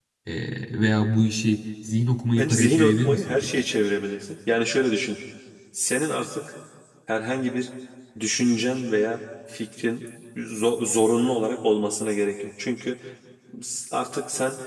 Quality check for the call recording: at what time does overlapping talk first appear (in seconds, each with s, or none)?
2.3 s